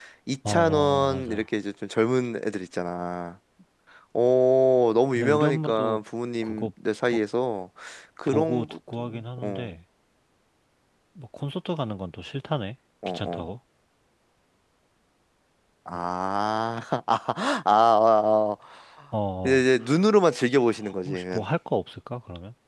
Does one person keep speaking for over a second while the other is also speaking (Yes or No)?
Yes